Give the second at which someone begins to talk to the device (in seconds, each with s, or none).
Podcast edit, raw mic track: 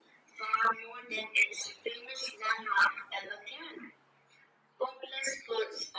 none